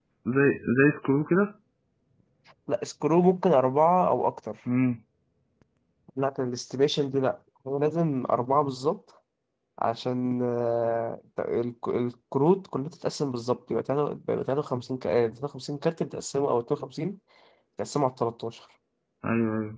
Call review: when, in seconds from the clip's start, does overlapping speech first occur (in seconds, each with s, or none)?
none